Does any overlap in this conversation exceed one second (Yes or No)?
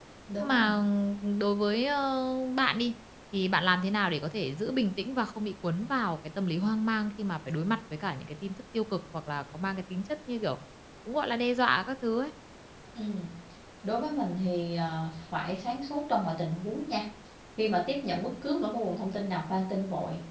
No